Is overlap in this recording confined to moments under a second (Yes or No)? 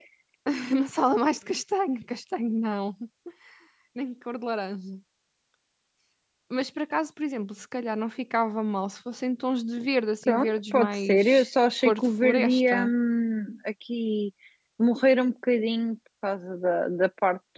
No